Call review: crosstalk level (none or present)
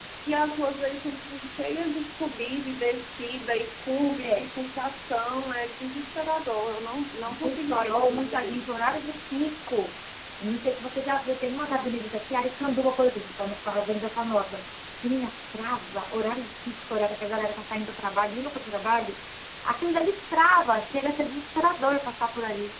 present